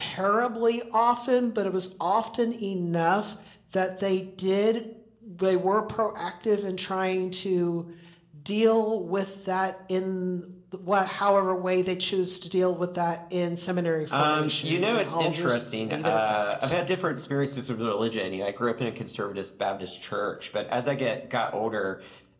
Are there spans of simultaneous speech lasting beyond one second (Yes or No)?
Yes